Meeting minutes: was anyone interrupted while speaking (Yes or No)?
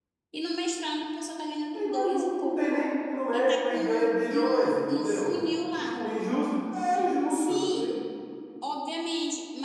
Yes